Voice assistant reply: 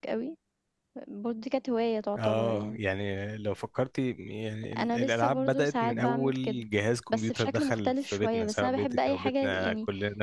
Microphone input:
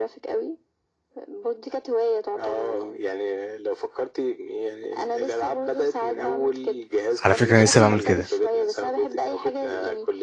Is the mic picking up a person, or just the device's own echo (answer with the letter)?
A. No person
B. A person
B